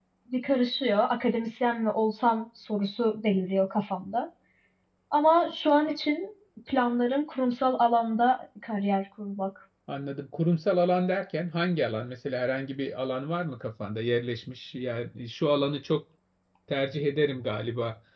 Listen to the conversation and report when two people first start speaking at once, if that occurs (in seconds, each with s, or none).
none